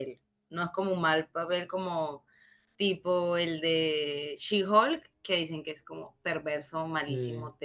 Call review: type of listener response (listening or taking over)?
listening